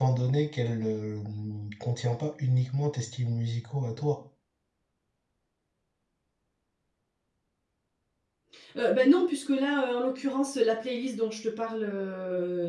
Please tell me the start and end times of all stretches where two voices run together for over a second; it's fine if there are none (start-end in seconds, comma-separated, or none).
none